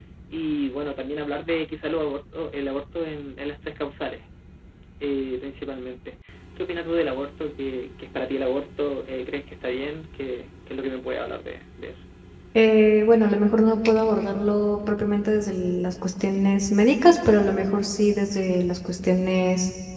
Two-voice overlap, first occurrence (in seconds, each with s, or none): none